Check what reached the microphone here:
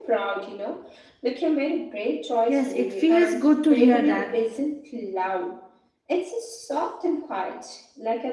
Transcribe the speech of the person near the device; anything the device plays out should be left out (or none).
Yes, it feels good to hear that.